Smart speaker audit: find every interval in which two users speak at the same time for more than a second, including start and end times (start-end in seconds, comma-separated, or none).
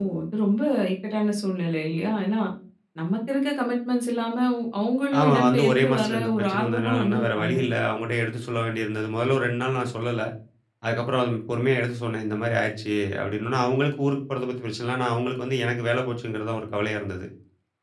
5.2-7.6